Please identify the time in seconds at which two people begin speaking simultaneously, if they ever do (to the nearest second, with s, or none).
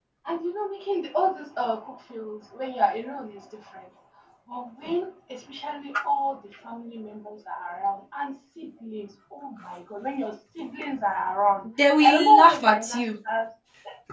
12 s